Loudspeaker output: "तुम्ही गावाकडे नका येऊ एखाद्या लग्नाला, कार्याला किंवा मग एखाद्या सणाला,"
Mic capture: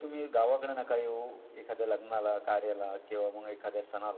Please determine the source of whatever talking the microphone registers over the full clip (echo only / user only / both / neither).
echo only